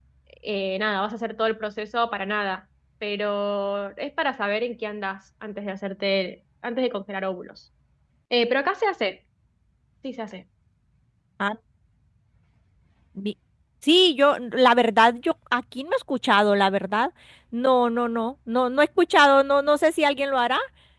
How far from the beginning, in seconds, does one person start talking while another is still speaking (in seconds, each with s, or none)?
none